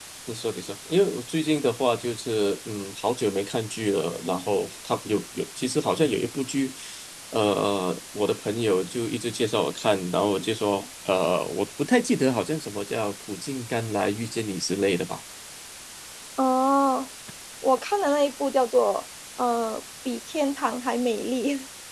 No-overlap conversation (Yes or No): Yes